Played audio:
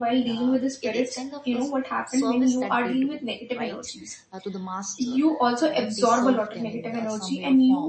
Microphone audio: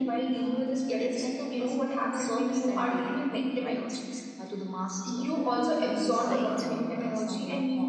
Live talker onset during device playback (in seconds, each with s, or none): 6.2 s